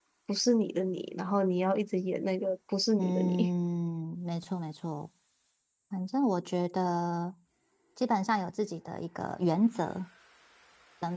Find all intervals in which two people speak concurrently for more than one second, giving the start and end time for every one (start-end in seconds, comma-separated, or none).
none